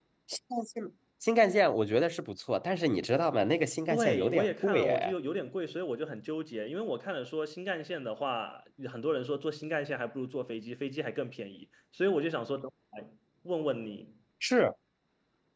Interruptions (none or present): present